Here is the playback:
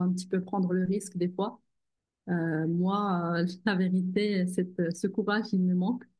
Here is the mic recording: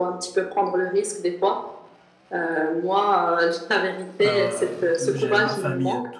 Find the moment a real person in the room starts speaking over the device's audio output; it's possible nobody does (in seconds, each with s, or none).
4.2 s